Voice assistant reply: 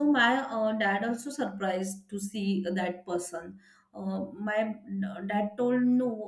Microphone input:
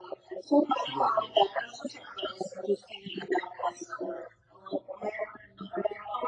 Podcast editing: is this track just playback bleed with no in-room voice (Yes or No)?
No